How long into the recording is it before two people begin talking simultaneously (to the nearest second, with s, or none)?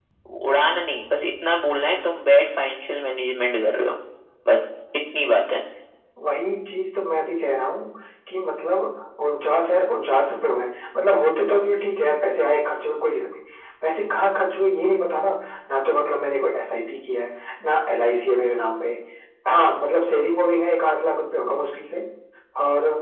none